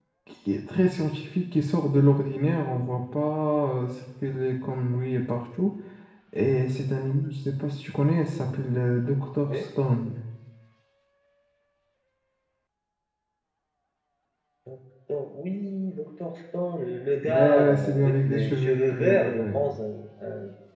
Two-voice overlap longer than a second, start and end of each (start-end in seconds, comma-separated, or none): 17.2-19.6